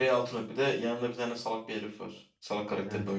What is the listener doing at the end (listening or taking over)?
taking over